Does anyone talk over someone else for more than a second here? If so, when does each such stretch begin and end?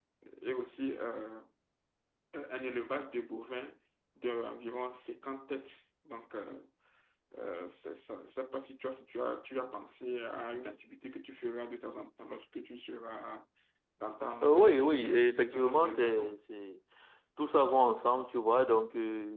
14.4-16.4

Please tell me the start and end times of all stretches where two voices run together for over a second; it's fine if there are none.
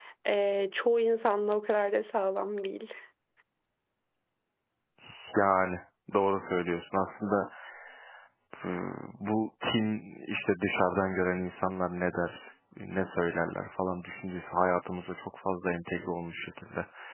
none

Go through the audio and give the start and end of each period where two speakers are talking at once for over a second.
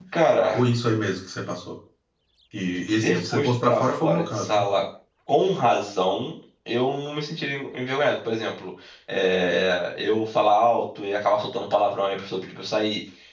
3.0-4.6

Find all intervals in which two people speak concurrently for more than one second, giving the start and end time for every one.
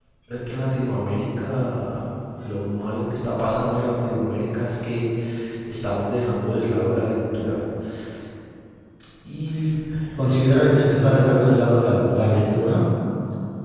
10.2-11.5

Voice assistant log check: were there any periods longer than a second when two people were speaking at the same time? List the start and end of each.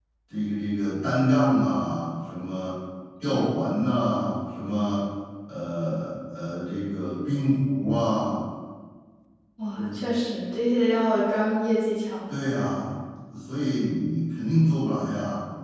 none

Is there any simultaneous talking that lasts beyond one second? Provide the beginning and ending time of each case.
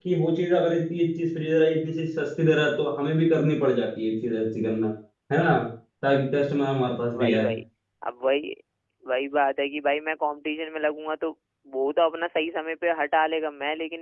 none

